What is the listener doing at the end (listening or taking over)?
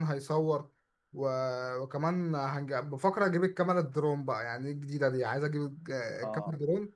listening